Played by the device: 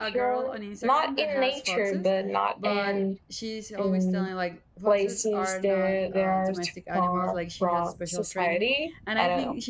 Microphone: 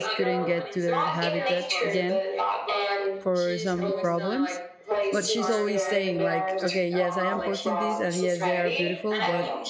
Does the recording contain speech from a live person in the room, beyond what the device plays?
Yes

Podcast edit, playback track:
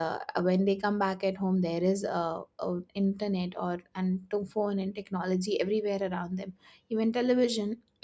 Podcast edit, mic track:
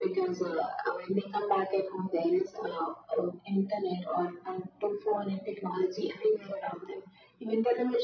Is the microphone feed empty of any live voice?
Yes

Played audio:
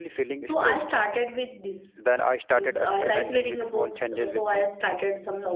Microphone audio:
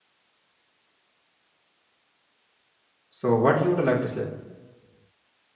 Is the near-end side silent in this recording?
No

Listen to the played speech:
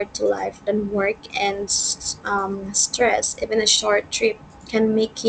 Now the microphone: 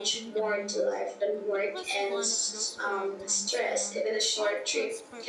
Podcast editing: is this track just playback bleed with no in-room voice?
No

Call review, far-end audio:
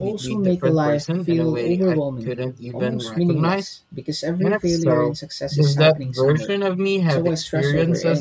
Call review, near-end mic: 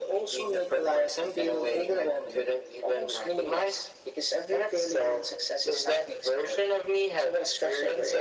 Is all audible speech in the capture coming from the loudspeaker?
Yes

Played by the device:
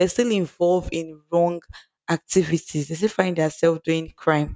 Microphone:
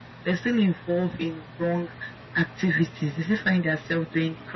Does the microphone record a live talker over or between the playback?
No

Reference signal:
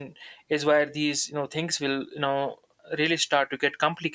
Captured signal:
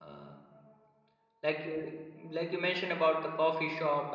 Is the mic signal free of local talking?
No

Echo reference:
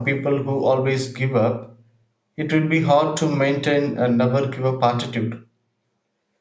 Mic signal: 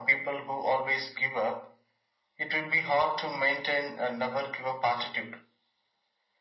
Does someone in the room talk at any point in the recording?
No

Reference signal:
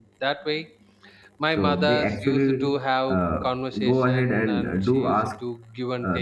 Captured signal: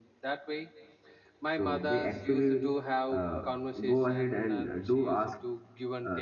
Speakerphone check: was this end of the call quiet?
Yes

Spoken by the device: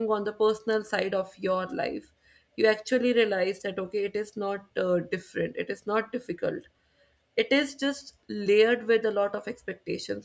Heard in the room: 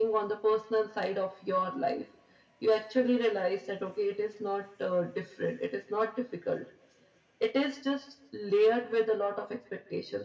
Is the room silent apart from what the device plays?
Yes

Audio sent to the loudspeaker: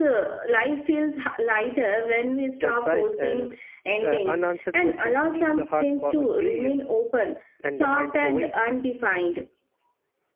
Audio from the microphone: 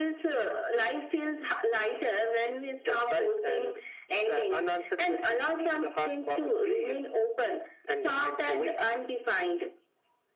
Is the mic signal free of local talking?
Yes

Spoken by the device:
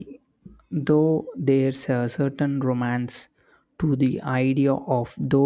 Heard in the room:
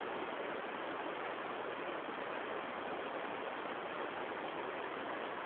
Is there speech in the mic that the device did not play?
No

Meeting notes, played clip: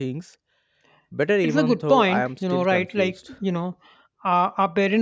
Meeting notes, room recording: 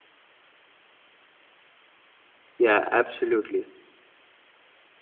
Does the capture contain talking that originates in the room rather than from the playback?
Yes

